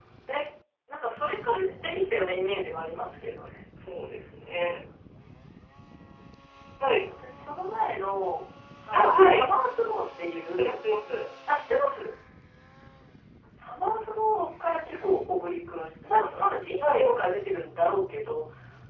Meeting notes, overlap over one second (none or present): none